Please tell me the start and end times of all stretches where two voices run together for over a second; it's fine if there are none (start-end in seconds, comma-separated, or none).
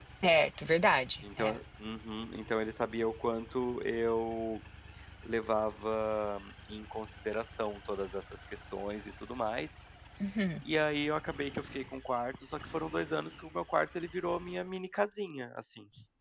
none